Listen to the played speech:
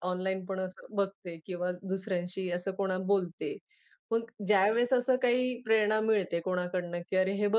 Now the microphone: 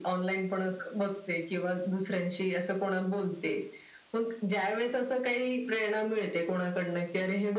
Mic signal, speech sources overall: echo only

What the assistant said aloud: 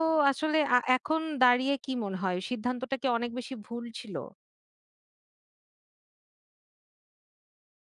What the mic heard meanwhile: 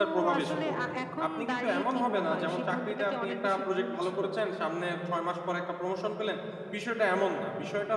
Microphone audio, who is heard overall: both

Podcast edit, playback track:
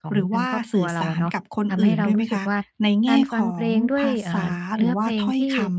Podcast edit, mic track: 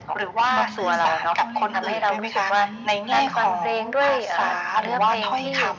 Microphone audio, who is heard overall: both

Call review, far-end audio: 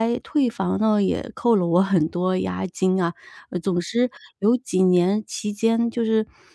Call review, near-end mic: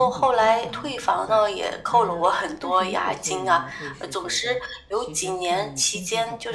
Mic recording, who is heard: both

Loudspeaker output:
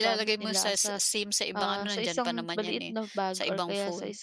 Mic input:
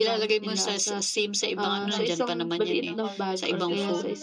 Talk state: both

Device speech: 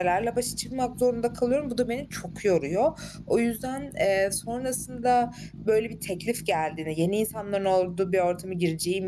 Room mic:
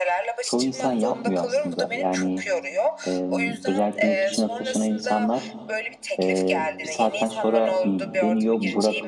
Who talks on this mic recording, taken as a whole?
both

